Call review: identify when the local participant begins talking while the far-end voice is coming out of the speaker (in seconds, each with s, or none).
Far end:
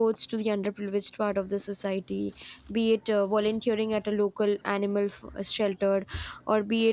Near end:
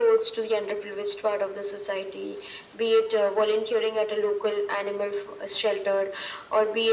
none